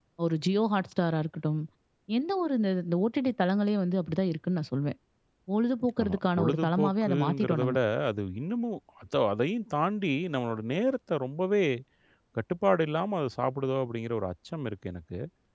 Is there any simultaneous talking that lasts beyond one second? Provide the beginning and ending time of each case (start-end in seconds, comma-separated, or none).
6.0-7.8